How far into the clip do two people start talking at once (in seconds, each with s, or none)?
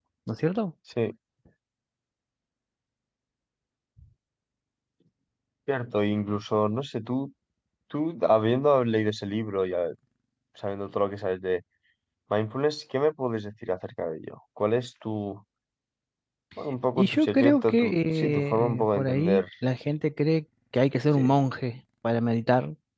17.0 s